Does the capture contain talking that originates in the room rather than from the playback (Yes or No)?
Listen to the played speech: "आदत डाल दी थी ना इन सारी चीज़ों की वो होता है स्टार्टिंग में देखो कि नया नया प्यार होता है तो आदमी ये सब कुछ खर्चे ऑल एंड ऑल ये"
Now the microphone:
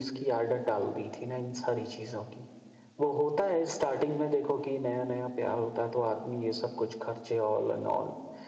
No